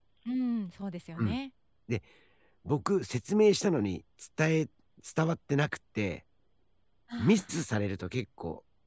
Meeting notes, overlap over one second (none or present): none